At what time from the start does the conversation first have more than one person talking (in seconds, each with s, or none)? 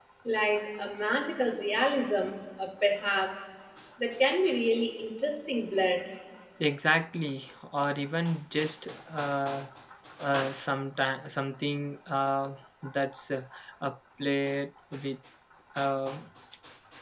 none